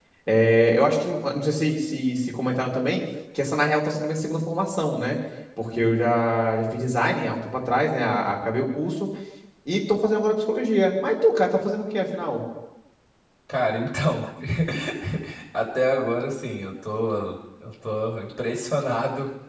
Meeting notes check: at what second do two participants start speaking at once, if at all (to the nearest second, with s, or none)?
none